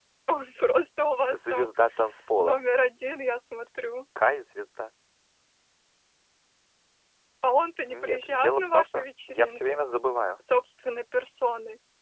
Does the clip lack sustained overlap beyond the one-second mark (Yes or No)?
No